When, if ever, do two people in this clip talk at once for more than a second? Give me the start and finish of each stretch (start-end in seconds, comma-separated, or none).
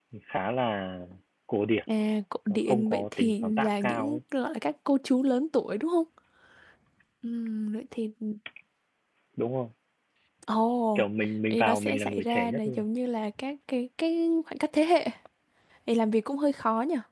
2.5-4.2, 11.5-12.8